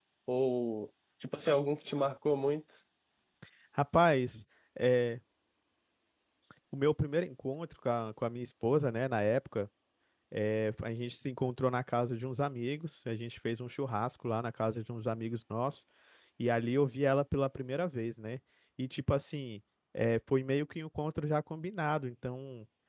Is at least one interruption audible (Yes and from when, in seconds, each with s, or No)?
No